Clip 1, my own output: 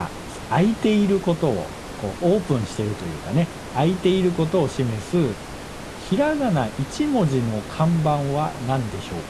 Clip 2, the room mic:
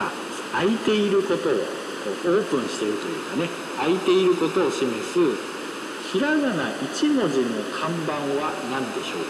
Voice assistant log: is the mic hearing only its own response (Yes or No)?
Yes